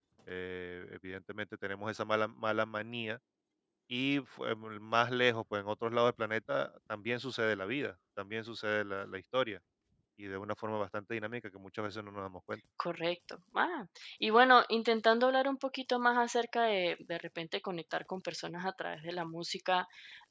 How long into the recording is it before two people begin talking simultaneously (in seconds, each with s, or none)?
none